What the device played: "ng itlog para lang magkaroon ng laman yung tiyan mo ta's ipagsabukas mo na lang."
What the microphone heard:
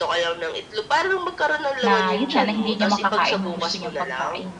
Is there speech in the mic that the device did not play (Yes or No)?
Yes